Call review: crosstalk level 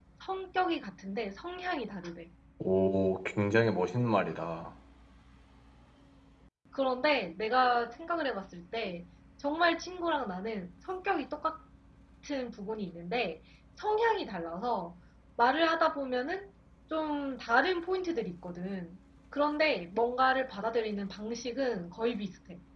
none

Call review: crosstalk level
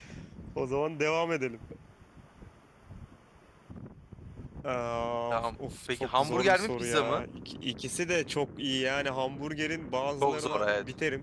present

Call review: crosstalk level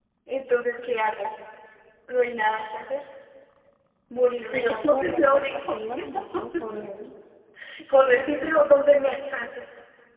present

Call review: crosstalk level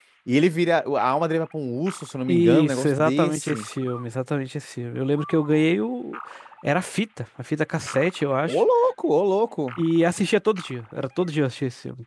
present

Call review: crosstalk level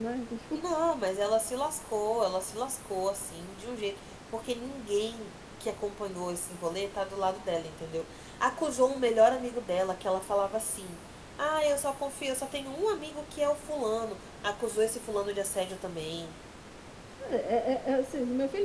none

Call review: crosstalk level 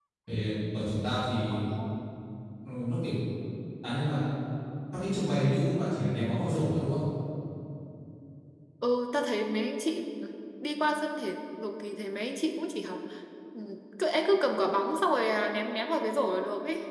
none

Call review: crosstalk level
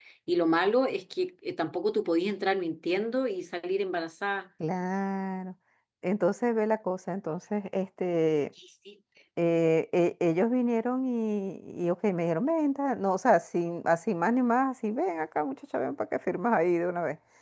none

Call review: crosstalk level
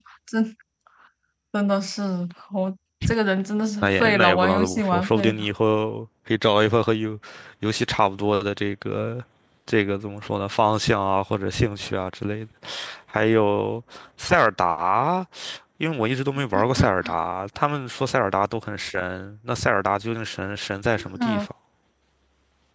present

